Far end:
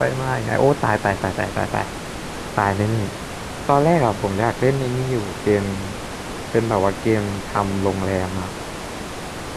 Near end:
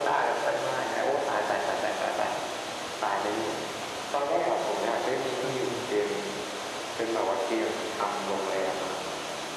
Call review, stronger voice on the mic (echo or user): echo